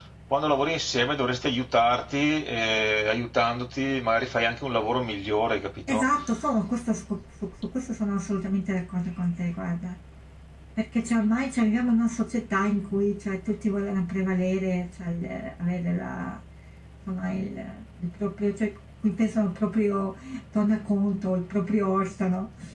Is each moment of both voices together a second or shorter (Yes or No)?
Yes